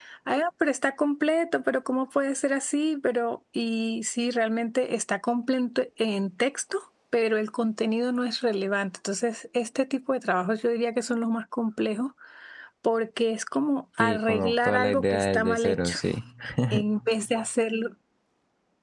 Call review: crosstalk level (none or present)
present